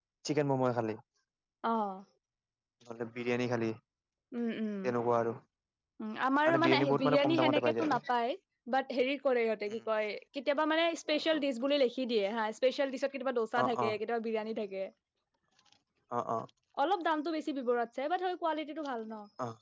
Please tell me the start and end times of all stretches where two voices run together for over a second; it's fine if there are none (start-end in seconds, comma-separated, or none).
6.4-7.9